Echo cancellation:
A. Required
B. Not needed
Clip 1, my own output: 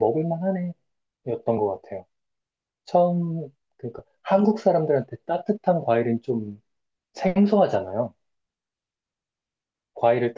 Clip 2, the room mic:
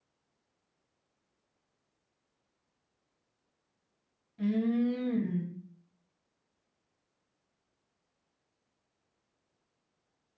B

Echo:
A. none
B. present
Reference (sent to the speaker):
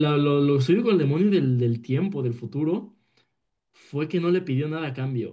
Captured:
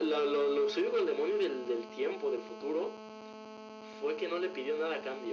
B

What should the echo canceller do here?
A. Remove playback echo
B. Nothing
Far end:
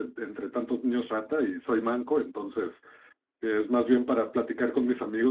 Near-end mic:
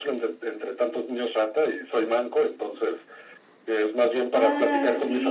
A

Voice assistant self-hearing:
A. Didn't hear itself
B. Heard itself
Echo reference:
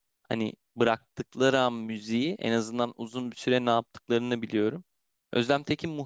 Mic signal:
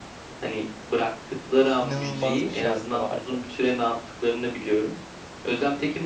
B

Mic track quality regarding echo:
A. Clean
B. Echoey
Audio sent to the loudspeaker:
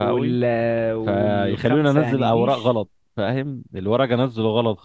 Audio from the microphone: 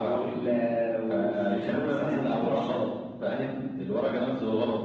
B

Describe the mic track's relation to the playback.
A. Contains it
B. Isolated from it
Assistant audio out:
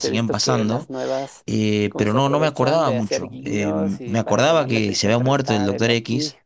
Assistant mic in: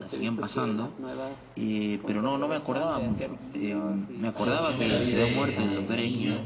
A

